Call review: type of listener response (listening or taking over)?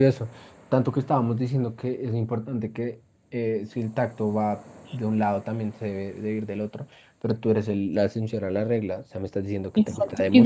taking over